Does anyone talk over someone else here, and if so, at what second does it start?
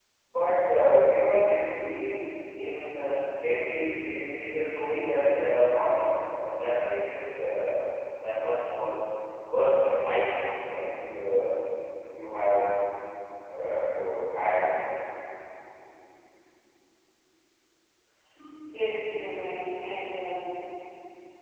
none

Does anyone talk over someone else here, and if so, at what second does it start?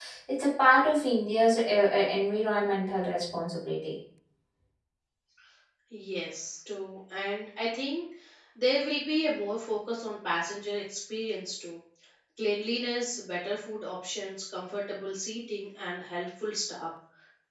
none

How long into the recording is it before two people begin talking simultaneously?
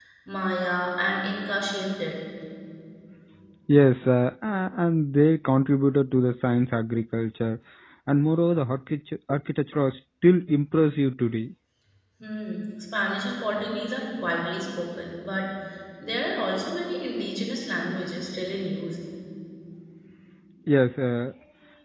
none

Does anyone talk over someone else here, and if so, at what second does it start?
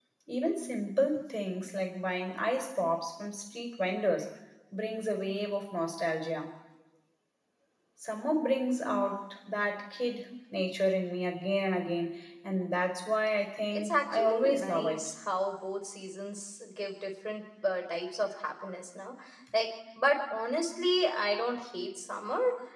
13.7 s

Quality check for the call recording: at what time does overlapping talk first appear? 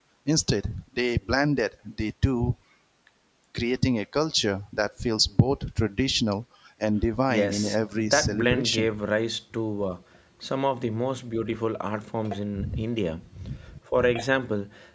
7.3 s

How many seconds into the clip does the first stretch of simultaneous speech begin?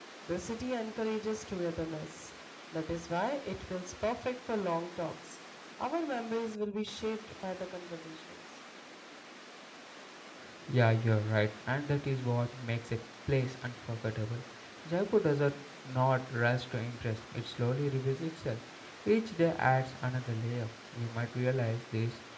none

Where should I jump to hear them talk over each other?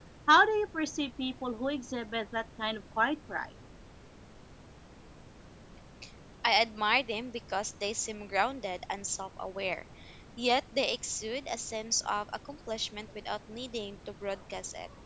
none

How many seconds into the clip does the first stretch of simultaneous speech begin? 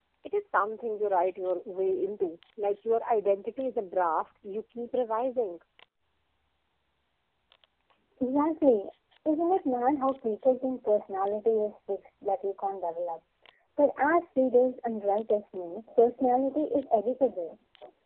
none

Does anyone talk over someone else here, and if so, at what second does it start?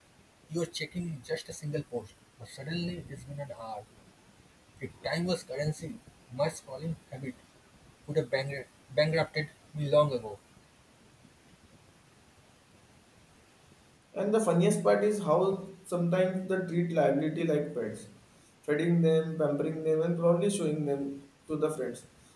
none

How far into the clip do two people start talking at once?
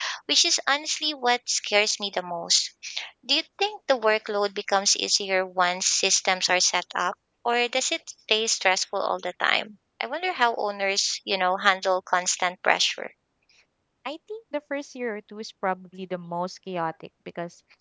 none

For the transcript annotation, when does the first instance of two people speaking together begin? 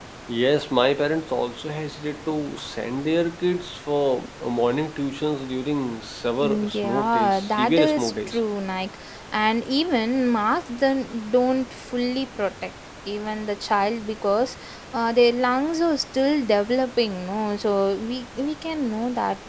6.4 s

